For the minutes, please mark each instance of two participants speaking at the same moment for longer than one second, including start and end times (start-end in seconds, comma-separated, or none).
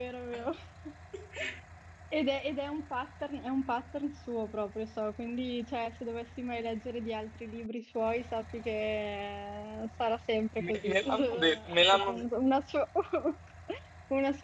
10.7-12.2